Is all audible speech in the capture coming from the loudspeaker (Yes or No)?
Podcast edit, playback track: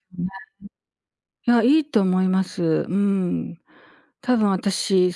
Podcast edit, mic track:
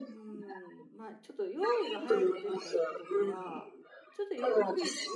No